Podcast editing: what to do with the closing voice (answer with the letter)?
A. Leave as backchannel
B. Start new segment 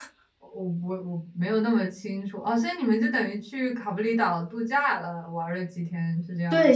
B